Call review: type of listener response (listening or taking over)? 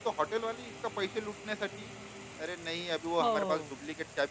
listening